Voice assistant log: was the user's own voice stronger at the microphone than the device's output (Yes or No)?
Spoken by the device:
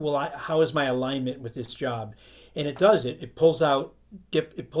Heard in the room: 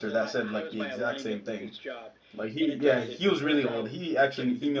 Yes